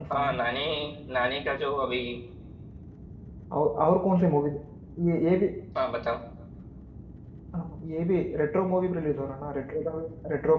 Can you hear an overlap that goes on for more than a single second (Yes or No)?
No